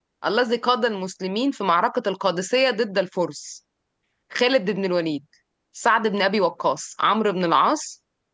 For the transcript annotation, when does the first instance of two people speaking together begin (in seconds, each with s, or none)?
none